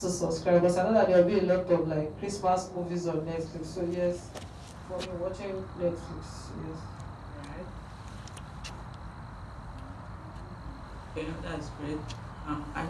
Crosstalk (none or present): none